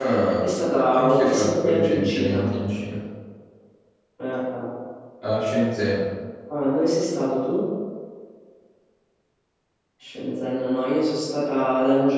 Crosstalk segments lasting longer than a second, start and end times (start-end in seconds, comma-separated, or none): 0.9-2.5